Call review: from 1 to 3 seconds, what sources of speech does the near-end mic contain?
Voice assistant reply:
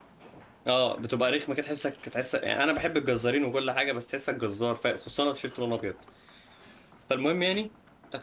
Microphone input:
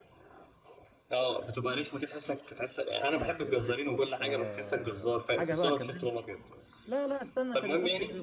echo only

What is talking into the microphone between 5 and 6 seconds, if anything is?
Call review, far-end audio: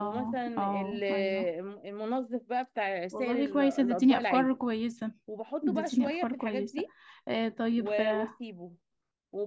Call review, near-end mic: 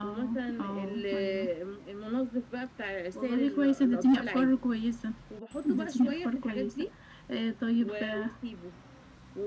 echo only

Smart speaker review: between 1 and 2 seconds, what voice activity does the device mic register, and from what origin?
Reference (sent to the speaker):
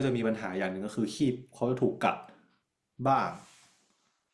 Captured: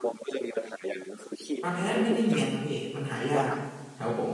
both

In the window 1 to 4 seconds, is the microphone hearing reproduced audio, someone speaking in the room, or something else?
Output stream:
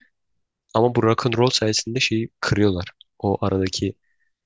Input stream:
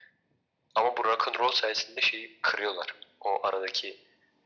echo only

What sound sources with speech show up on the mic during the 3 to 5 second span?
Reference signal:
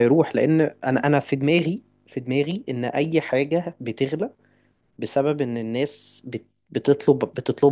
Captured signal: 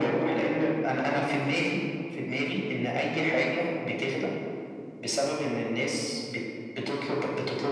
echo only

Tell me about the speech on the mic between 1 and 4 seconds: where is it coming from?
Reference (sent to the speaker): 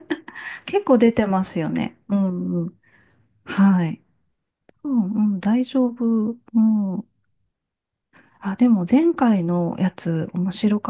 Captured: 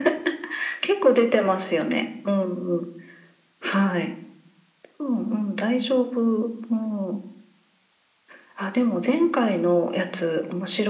echo only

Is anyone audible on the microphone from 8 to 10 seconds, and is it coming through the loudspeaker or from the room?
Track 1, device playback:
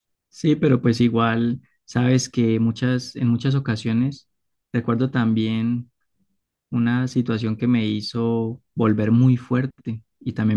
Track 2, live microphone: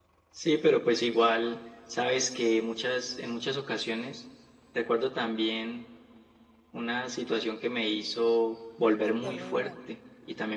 both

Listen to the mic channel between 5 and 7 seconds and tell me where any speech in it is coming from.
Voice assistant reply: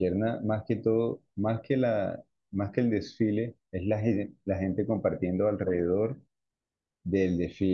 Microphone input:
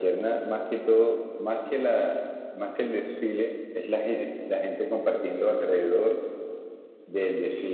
echo only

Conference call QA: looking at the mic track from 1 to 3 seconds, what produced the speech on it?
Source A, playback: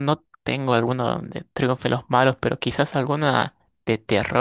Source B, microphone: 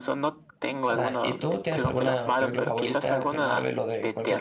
both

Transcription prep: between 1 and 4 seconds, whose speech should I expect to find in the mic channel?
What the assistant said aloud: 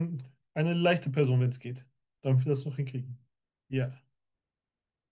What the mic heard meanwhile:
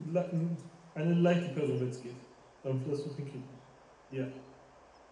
echo only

